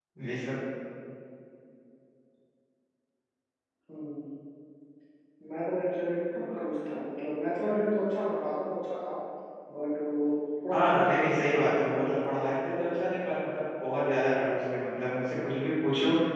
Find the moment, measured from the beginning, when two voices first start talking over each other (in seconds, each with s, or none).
10.7 s